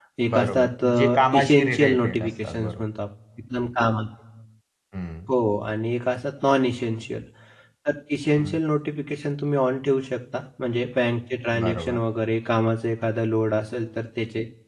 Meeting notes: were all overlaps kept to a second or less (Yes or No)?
No